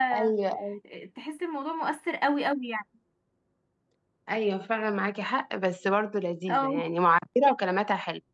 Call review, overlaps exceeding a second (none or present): none